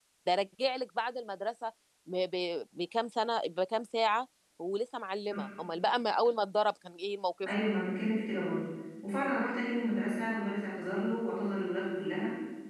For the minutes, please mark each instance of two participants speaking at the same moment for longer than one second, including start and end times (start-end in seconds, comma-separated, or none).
none